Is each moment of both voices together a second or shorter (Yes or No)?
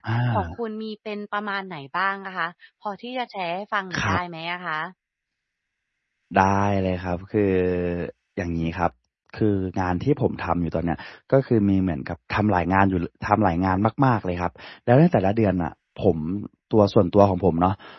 Yes